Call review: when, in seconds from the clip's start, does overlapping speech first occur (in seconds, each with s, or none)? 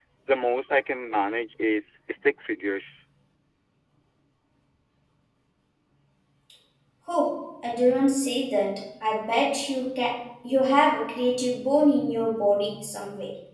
none